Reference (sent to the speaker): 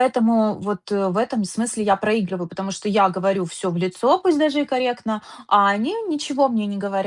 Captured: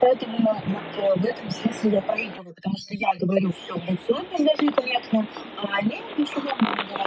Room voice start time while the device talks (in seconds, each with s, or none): none